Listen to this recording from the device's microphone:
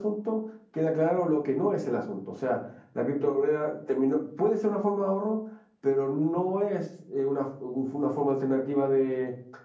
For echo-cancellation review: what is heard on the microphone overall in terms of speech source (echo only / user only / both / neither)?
echo only